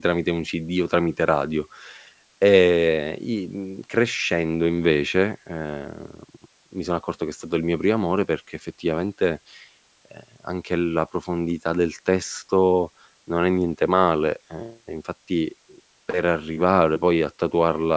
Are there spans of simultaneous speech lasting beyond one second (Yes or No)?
No